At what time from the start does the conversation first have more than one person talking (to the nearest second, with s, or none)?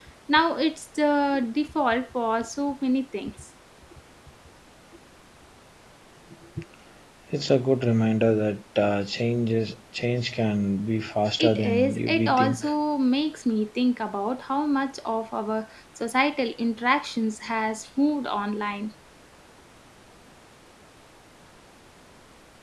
11 s